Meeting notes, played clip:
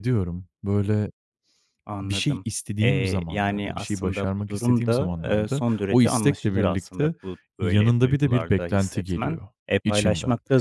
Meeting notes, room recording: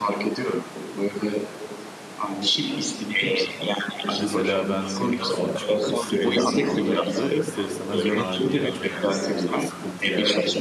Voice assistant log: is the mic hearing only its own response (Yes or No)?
No